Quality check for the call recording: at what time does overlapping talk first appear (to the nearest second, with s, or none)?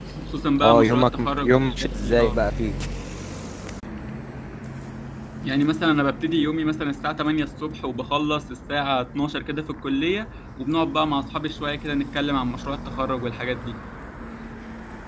1 s